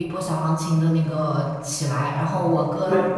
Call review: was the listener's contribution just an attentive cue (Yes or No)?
Yes